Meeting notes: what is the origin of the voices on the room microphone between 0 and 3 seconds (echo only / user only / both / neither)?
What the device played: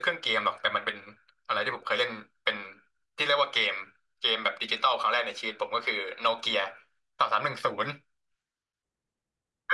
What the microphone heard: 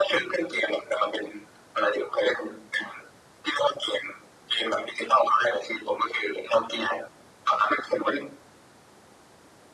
echo only